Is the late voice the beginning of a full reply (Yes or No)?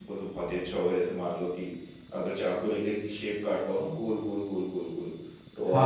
Yes